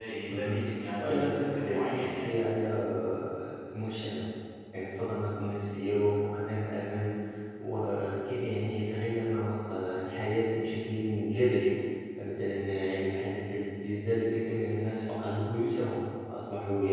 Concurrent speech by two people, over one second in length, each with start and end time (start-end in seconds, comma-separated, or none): 1.0-2.4